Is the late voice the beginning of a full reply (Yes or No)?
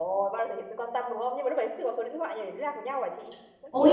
Yes